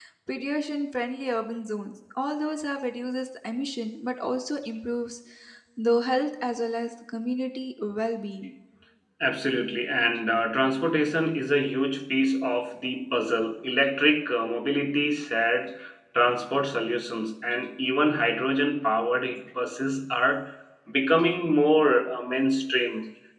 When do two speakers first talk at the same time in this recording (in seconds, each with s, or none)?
none